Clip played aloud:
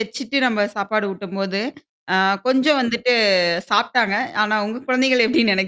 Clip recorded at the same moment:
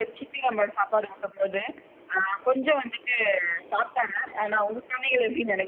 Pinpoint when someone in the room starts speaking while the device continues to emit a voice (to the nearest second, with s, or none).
none